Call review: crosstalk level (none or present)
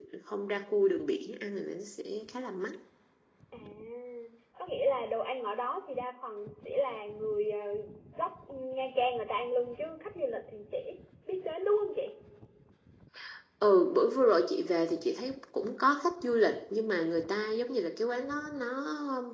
none